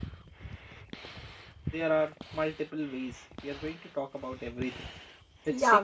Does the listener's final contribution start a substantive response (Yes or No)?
Yes